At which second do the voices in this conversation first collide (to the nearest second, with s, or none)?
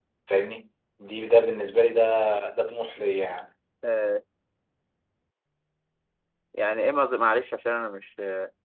none